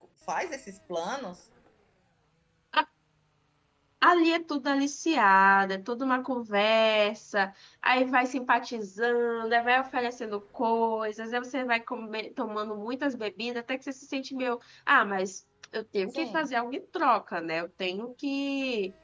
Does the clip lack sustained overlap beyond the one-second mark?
Yes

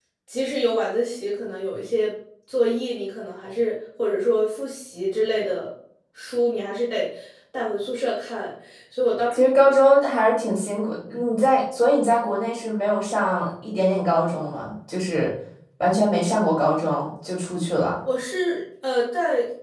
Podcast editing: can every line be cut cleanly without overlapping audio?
Yes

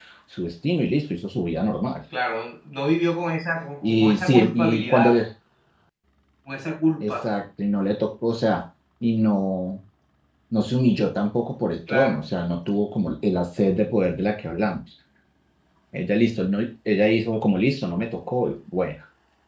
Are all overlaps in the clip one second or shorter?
No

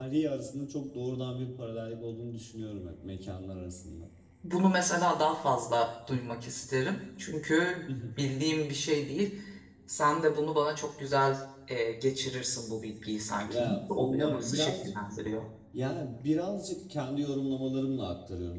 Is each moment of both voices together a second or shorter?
No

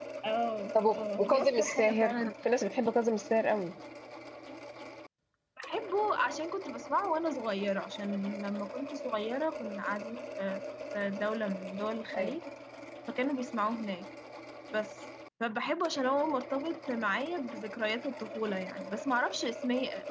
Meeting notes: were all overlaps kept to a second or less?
No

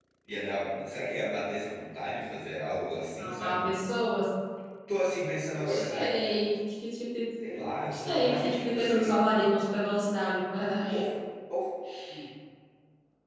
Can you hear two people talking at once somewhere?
Yes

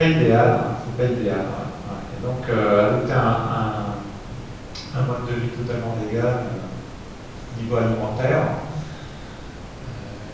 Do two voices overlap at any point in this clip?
No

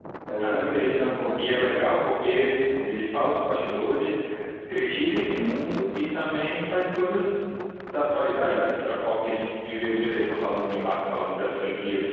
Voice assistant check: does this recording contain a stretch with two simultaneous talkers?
Yes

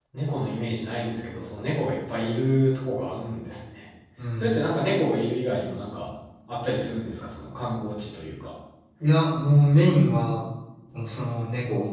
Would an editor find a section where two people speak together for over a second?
No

